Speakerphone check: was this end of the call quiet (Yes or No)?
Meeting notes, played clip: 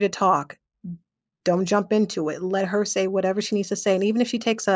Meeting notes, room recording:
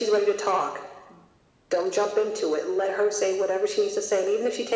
Yes